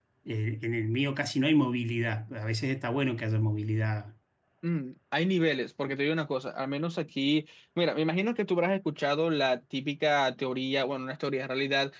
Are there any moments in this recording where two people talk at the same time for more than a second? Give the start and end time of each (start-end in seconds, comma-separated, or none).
none